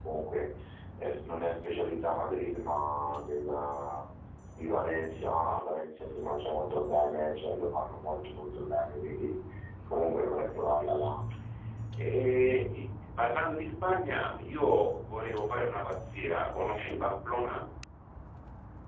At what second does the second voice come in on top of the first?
none

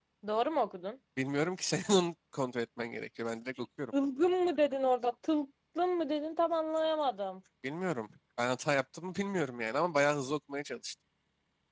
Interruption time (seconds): none

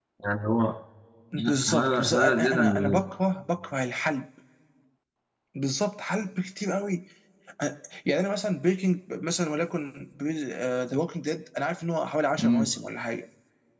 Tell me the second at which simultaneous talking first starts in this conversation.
2 s

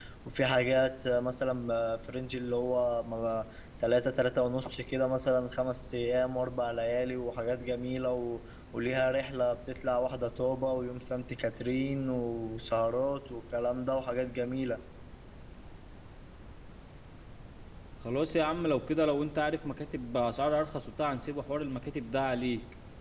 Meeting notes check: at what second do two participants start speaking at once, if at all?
none

